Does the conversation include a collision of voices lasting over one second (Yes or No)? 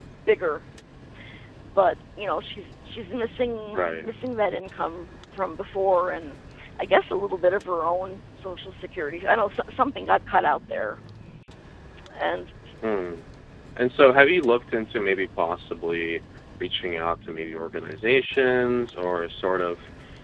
No